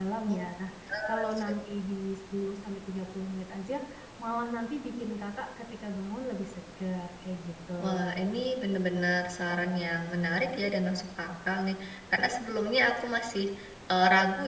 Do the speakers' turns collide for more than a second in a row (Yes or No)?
No